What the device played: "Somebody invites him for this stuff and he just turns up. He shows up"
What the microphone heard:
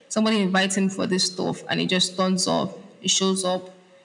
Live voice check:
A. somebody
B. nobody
B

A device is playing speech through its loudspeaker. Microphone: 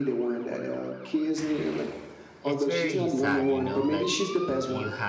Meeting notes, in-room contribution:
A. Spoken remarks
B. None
A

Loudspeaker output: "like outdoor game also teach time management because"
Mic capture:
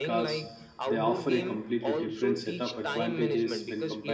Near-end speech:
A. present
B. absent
A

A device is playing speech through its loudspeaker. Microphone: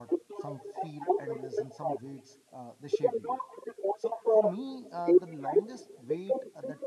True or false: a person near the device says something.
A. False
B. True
B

